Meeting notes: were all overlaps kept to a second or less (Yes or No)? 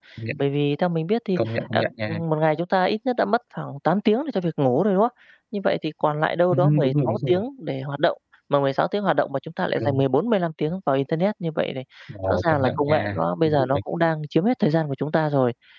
No